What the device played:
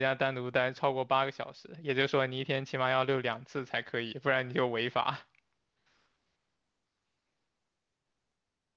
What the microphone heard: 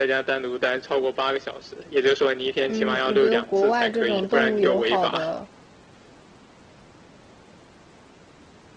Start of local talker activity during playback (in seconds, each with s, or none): 2.7 s